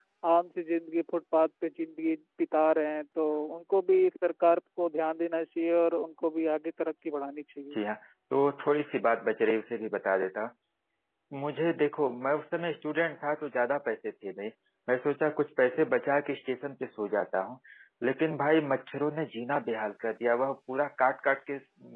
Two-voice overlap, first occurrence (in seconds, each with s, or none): none